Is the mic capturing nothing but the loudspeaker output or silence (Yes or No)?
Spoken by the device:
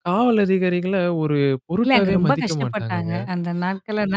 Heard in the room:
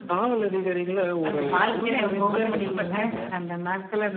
No